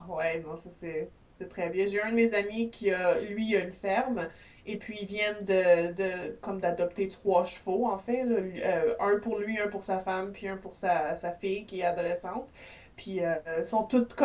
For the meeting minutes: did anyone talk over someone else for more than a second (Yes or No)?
No